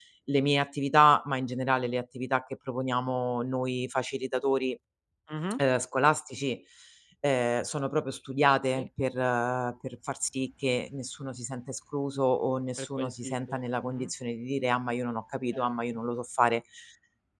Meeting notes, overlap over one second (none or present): present